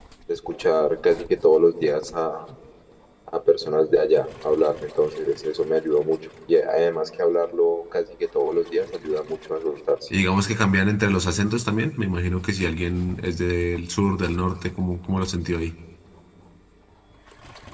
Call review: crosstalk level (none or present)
none